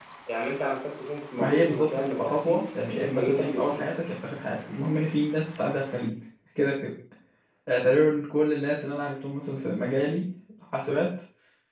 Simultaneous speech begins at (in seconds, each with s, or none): 1.4 s